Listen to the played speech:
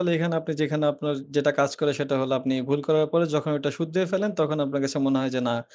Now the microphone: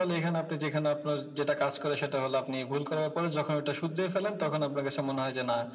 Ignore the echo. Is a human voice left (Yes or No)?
No